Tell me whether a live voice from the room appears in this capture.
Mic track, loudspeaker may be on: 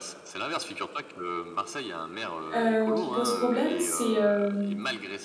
Yes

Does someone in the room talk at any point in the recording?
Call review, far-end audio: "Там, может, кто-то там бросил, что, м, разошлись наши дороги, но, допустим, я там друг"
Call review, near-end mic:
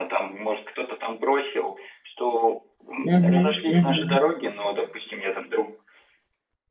Yes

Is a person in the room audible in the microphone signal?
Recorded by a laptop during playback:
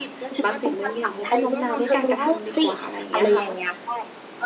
Yes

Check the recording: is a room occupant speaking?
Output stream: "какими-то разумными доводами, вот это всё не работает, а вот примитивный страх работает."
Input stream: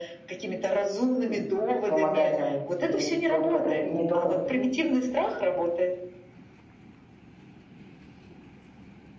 Yes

